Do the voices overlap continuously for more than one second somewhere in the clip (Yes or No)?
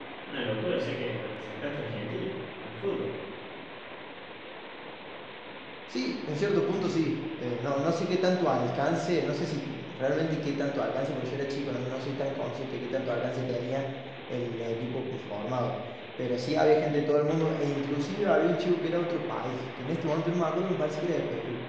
No